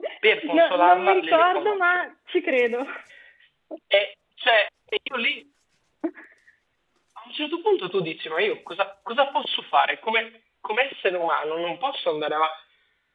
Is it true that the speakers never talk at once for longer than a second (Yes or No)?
No